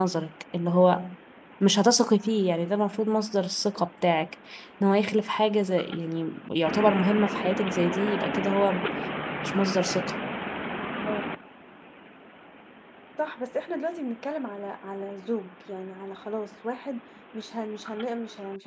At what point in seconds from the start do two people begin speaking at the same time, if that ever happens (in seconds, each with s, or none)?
none